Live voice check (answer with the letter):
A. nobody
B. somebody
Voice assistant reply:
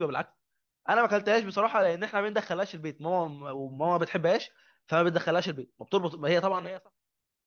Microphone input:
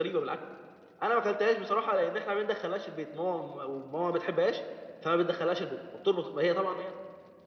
A